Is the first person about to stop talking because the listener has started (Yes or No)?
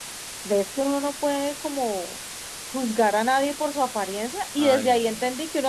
No